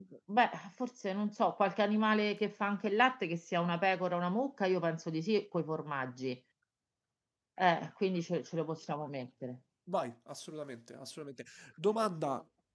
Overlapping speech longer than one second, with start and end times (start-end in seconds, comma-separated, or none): none